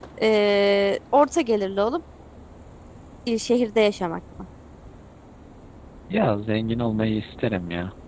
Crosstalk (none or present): none